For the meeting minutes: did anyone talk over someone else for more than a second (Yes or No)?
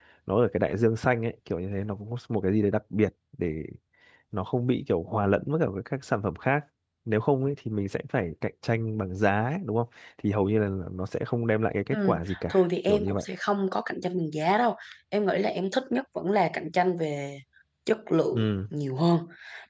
Yes